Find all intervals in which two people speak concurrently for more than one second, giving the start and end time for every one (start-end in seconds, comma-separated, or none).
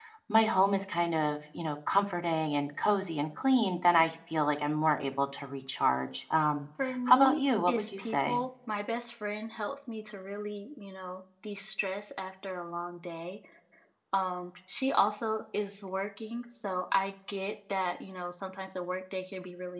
7.1-8.4